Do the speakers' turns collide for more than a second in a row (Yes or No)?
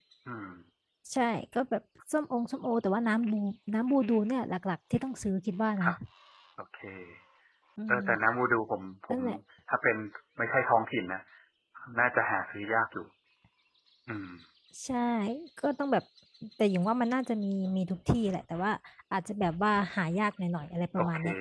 No